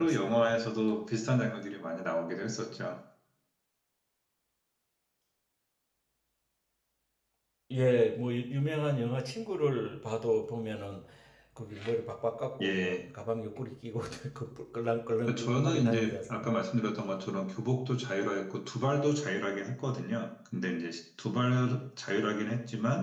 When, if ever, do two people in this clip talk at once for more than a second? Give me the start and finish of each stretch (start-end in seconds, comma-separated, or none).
15.2-16.5